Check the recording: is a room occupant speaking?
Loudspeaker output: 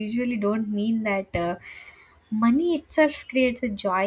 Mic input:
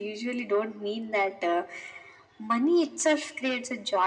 No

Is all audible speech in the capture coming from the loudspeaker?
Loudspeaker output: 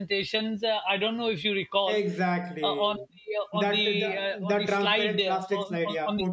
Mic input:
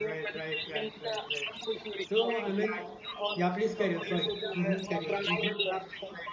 No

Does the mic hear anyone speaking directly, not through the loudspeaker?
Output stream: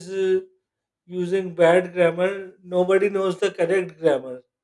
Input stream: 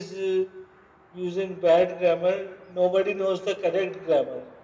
No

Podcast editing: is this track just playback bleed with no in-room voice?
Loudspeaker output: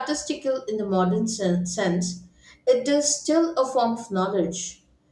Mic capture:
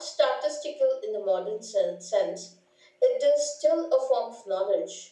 Yes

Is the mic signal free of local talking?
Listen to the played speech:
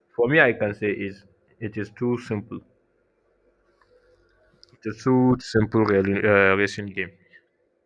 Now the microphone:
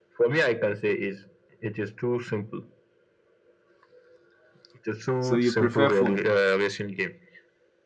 No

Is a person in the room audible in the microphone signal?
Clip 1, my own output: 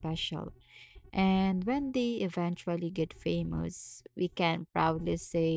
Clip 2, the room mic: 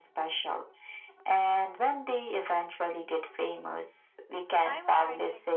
Yes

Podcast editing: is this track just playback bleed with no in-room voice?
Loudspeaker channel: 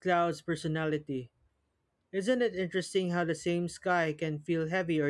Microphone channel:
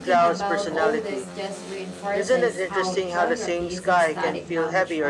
No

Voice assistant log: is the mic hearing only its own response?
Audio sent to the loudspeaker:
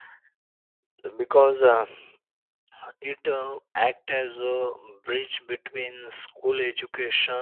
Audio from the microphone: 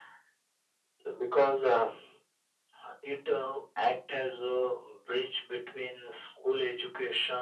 Yes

